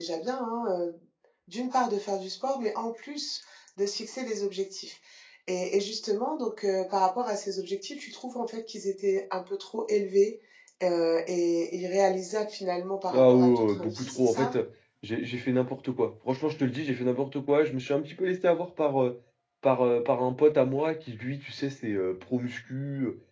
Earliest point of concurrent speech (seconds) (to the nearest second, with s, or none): 13 s